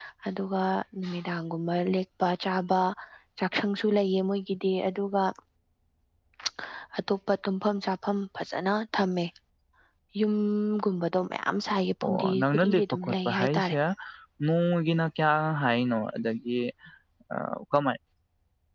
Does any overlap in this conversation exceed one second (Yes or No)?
Yes